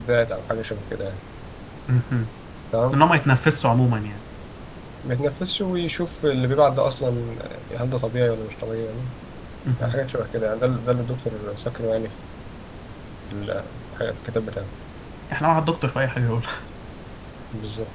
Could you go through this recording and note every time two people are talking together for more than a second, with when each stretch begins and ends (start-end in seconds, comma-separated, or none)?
none